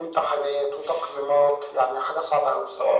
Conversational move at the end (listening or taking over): taking over